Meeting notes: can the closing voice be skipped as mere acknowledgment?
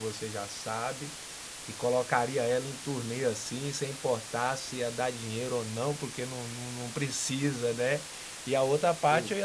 Yes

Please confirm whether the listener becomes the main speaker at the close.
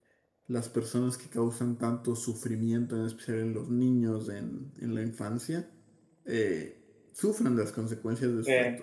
No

